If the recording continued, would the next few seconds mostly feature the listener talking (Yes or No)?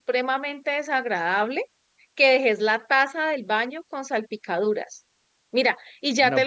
No